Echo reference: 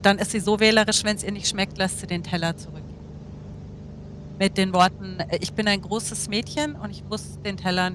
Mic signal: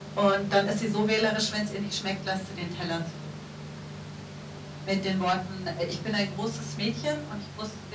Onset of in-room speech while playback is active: none

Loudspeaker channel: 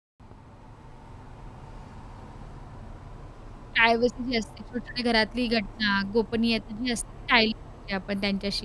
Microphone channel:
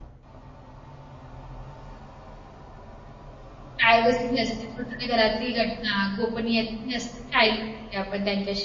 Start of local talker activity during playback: none

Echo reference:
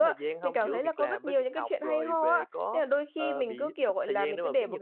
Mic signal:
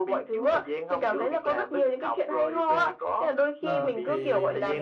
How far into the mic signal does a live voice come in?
3.6 s

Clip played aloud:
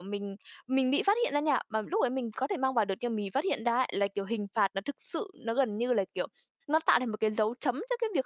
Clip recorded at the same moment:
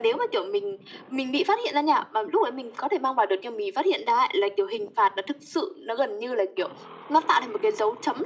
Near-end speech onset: none

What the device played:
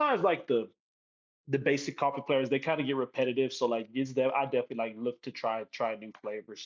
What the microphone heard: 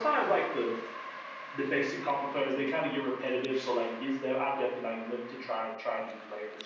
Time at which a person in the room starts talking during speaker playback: none

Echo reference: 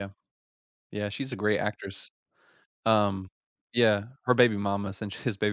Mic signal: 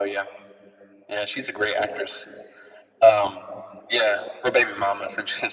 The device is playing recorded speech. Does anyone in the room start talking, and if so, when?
none

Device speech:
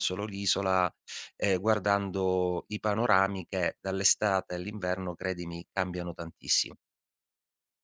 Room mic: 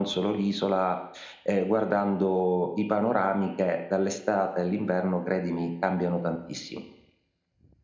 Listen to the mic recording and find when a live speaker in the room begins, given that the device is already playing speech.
none

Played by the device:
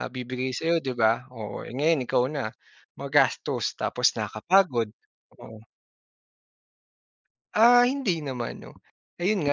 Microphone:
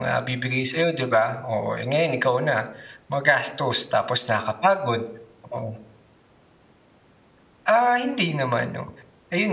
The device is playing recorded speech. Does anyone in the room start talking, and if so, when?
none

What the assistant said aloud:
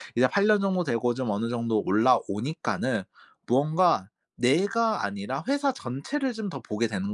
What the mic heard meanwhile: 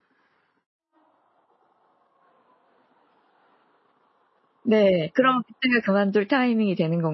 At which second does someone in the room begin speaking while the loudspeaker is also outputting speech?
4.6 s

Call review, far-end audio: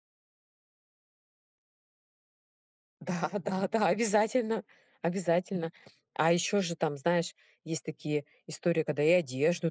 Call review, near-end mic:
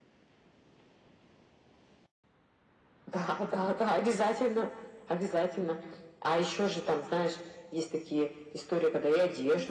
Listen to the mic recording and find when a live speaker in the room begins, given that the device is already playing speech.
none

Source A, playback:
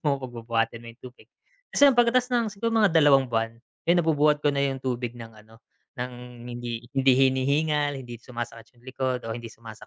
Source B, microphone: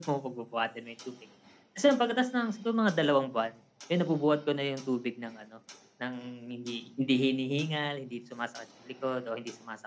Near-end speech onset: none

